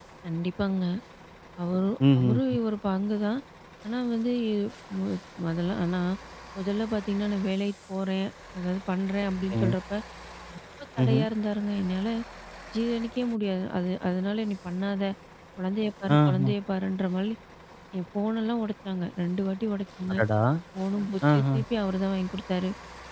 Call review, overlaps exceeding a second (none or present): none